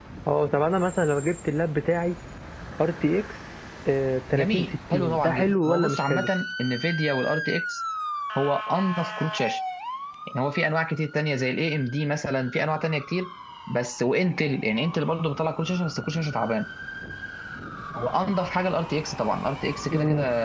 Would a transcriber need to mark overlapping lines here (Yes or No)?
Yes